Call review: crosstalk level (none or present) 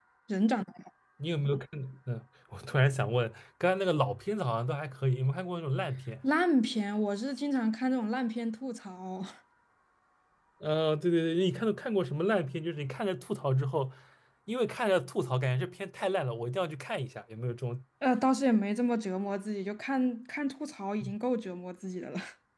none